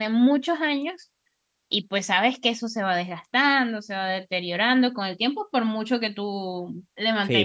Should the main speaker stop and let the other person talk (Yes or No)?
Yes